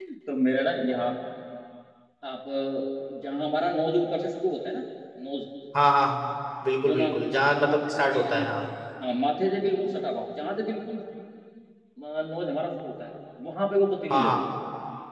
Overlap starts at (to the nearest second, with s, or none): 7 s